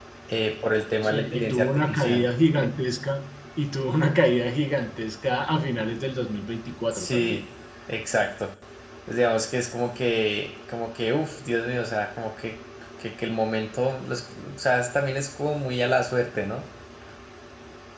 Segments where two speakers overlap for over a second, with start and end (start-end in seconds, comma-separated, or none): 1.0-2.2